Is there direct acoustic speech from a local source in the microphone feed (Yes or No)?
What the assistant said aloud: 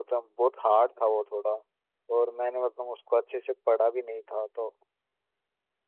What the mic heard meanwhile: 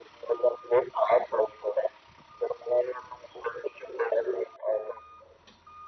No